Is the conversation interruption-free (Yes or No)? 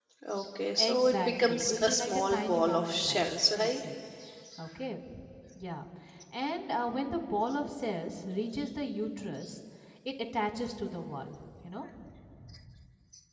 No